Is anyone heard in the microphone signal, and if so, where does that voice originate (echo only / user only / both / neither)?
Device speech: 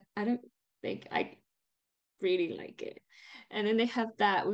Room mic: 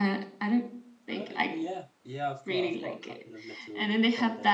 both